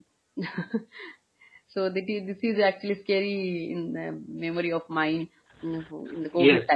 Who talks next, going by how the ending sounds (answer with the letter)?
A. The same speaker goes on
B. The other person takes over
B